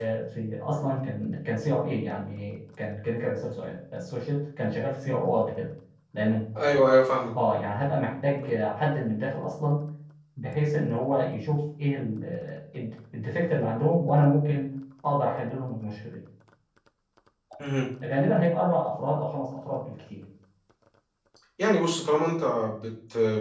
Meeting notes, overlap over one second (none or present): none